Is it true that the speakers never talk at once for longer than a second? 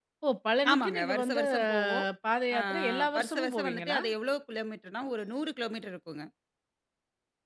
No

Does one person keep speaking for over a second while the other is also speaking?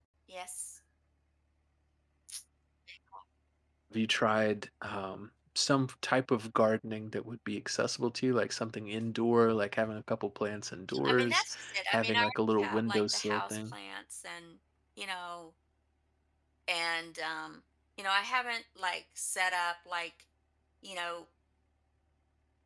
Yes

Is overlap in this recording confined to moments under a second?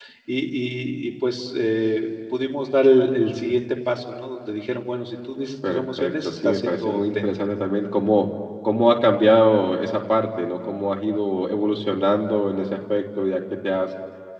No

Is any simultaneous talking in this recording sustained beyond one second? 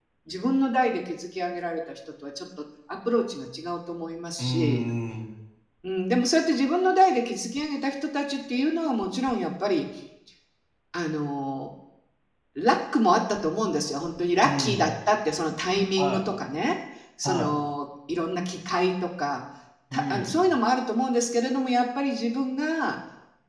No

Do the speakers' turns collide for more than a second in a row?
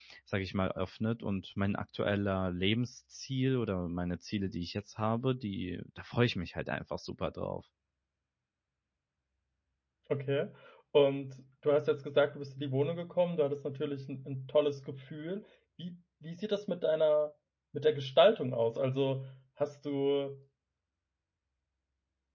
No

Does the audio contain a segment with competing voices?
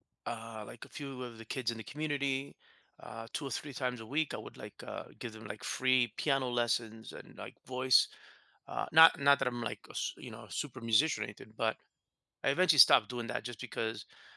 No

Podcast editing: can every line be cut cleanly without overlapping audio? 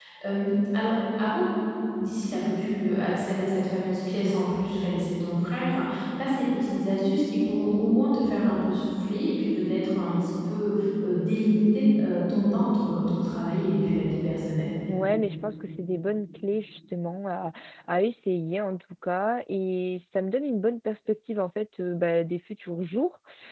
Yes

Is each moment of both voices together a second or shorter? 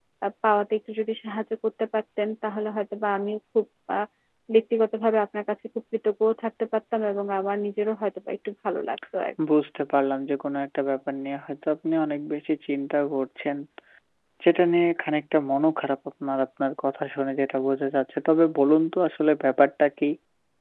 Yes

